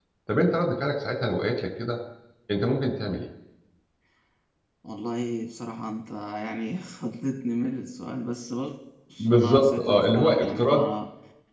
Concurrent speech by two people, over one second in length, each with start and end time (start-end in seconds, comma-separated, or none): 9.2-10.8